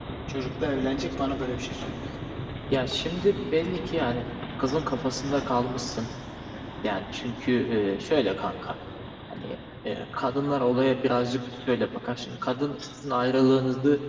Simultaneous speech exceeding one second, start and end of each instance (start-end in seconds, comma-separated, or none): none